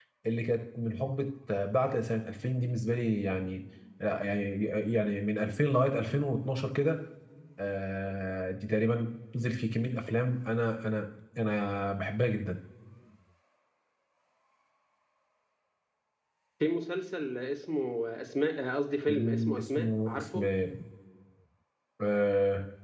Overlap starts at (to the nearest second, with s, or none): 19 s